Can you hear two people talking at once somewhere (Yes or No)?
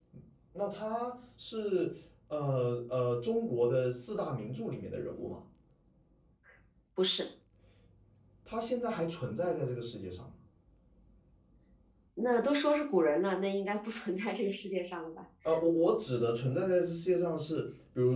No